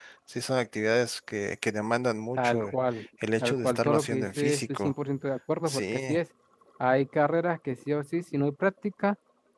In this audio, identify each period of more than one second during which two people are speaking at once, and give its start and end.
3.4-4.9

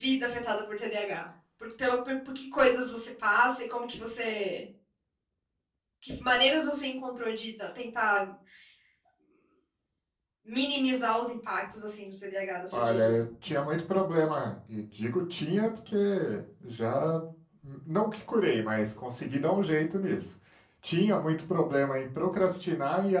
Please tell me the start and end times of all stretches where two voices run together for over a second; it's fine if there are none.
none

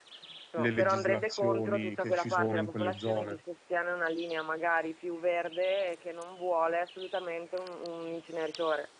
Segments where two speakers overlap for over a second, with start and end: 0.6-3.4

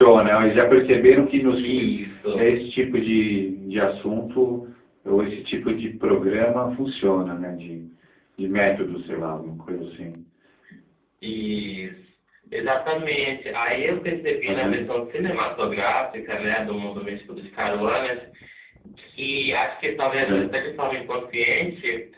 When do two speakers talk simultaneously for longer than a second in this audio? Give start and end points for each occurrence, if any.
none

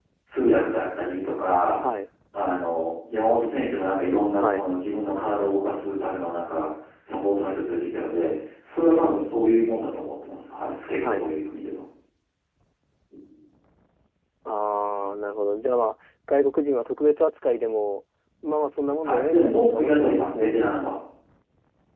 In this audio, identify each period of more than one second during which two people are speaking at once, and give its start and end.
19.0-20.5

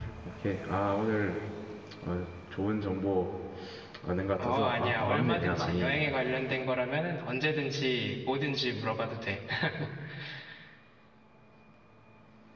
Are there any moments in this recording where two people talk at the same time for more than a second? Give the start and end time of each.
4.4-6.0

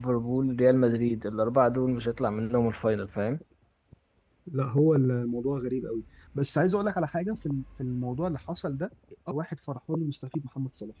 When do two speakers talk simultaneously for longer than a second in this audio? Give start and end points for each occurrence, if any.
none

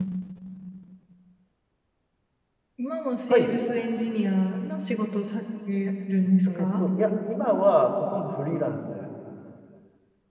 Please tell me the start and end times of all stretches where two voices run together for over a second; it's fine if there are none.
none

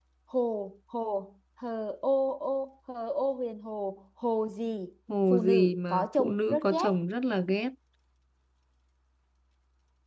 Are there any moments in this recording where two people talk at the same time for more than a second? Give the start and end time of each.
5.3-6.9

